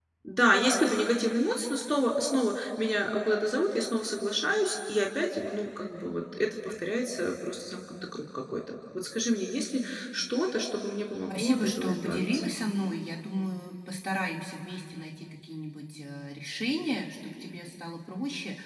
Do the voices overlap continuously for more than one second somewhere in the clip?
Yes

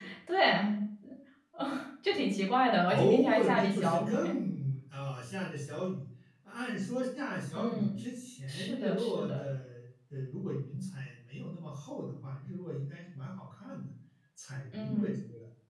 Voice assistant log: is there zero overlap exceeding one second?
No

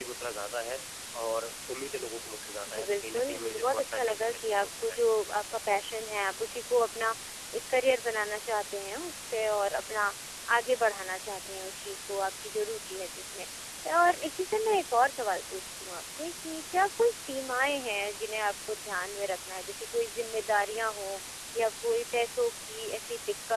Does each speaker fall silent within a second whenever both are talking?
No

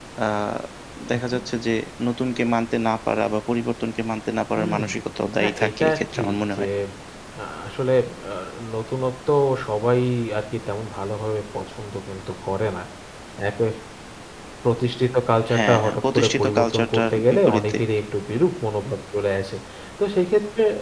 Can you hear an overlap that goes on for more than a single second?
Yes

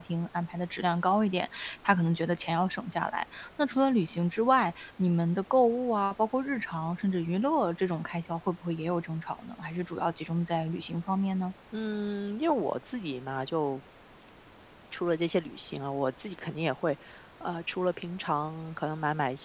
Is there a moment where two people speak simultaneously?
No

